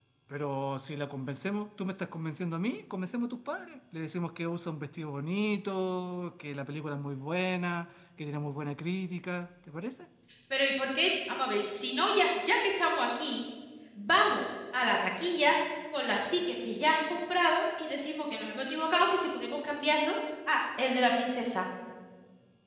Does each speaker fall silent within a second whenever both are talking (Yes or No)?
Yes